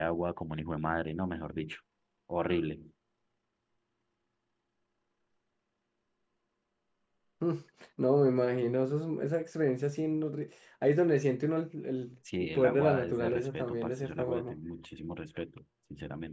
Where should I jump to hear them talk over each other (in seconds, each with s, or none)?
12.2 s